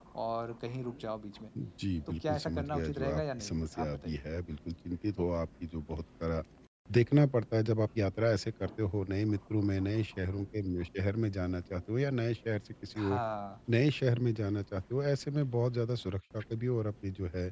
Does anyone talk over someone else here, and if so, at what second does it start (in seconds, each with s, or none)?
2.1 s